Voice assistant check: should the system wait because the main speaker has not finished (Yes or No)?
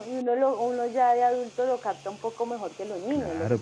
No